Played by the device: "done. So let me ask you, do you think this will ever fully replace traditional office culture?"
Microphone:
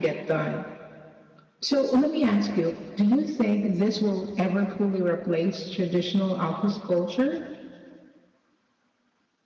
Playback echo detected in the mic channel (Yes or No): Yes